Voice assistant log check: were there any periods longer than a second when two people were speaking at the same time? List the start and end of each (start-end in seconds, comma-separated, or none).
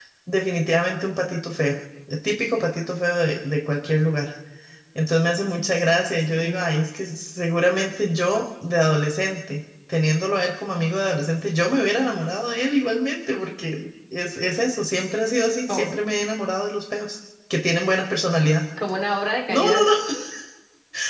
none